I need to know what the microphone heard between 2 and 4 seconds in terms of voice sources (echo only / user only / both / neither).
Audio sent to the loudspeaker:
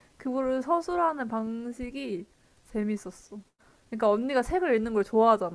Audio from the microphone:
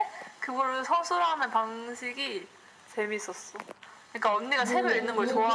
echo only